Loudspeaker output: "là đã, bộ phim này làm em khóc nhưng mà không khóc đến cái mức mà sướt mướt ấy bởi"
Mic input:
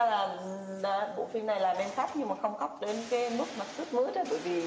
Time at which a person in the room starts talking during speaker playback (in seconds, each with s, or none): none